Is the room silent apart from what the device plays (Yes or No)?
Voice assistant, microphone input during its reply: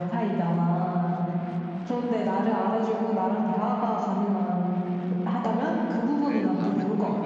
No